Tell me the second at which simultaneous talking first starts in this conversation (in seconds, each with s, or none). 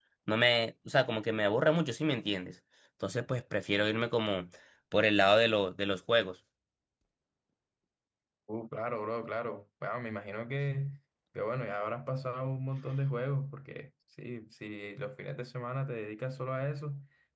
none